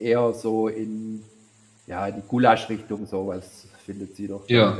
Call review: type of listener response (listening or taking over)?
listening